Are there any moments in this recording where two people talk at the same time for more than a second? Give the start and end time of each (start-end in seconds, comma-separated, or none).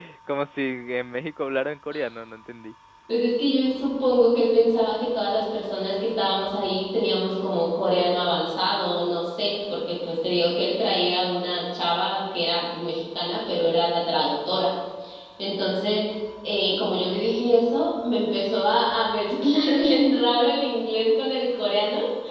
none